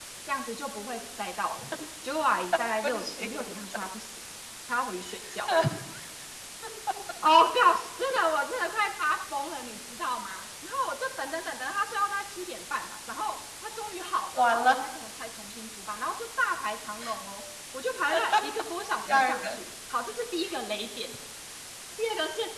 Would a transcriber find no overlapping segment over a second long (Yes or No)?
Yes